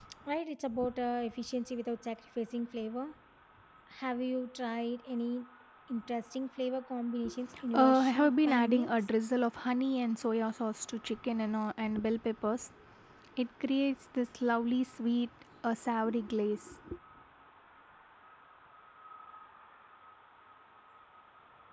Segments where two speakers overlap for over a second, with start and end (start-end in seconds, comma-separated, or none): 7.7-8.9